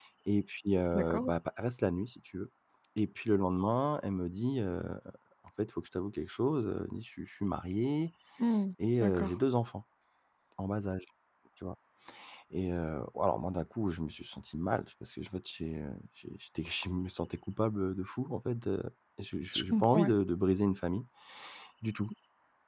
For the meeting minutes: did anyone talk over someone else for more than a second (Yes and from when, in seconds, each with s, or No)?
No